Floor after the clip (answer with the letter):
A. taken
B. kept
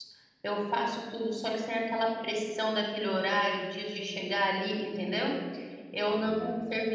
B